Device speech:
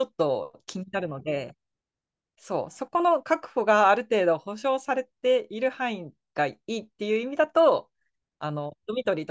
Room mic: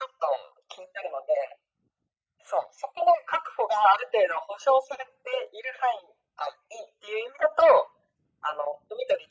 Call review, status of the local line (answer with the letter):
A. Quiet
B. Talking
A